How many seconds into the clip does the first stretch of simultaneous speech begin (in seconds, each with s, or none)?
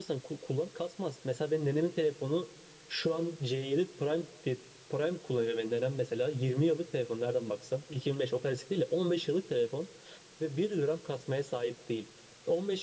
none